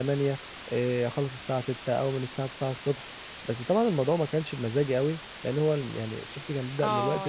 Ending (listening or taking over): taking over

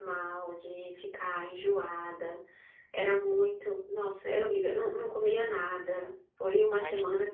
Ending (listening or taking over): taking over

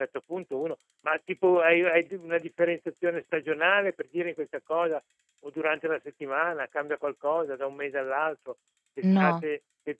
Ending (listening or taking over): listening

